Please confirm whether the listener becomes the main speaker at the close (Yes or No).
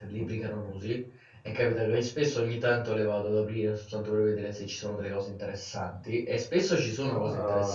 No